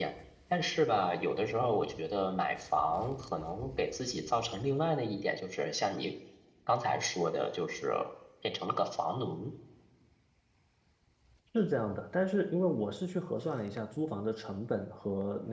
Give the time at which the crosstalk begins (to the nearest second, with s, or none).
none